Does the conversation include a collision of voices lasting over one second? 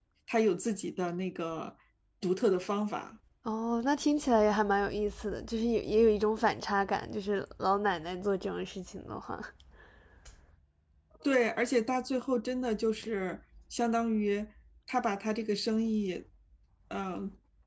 No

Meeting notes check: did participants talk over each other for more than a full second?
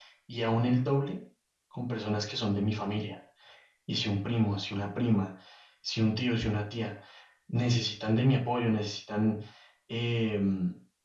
No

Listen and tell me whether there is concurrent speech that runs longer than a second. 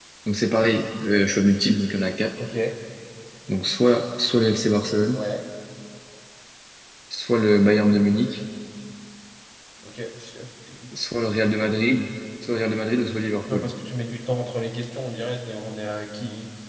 No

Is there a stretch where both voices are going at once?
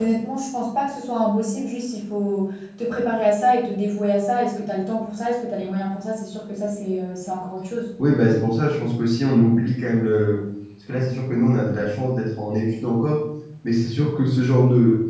No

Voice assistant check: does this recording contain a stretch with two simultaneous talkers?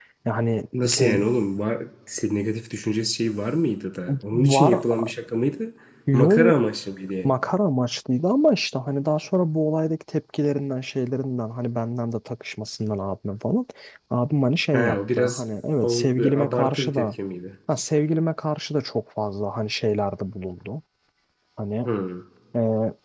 Yes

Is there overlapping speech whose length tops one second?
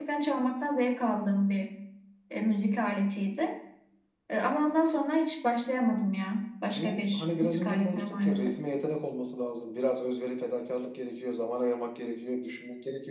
Yes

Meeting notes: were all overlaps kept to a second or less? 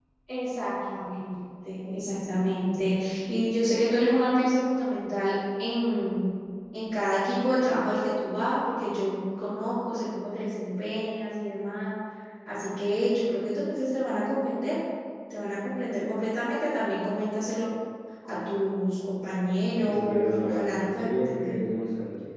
No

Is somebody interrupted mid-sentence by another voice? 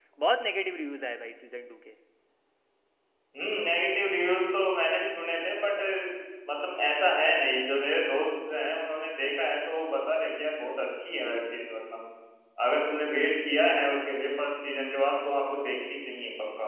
No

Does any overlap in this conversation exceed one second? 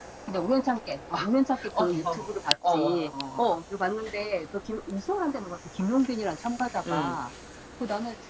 Yes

